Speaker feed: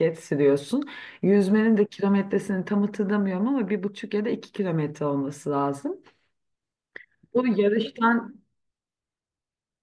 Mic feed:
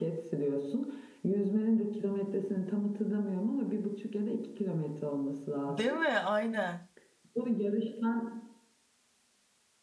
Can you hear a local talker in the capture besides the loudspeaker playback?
Yes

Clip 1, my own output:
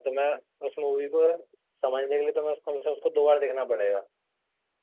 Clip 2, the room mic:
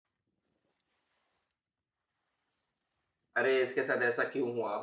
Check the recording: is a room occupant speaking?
Yes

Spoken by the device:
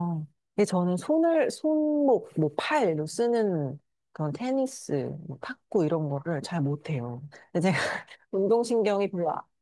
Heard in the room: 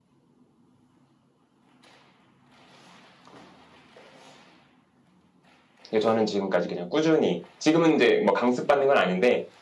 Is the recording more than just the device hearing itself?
Yes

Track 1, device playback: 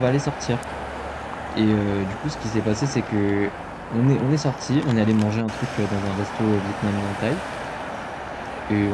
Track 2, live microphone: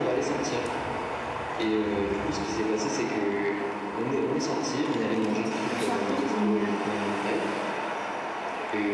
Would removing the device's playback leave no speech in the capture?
No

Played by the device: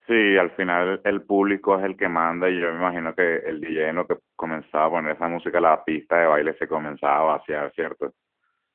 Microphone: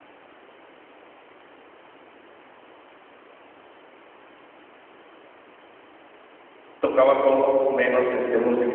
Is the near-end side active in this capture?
Yes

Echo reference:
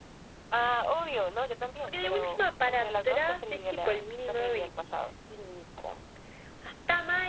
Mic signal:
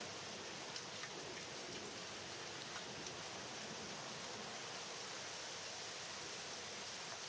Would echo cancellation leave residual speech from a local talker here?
No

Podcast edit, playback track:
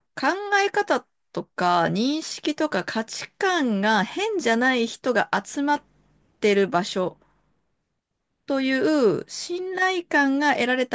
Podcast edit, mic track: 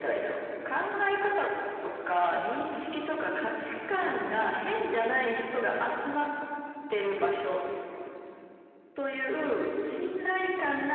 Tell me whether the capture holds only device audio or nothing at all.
Yes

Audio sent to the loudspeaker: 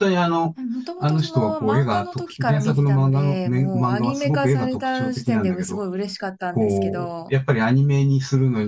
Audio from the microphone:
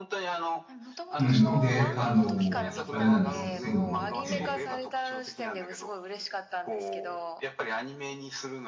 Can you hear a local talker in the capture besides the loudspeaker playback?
Yes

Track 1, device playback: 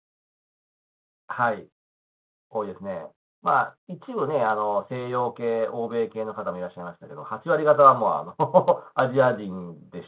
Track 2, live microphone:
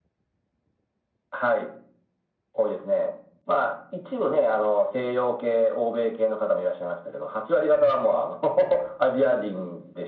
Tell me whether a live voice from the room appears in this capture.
No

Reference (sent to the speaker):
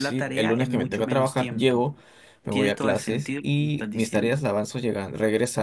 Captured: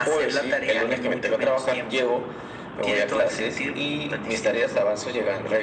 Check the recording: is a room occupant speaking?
No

